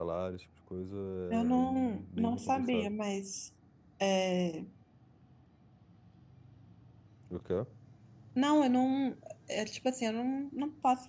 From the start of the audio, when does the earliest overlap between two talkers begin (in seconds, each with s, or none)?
1.4 s